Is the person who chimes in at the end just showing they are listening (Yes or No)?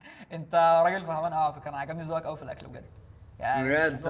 No